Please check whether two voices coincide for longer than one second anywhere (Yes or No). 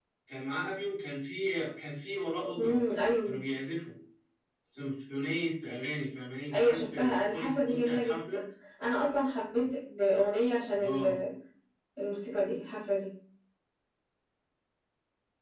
Yes